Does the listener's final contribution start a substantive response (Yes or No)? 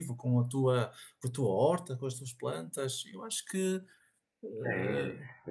Yes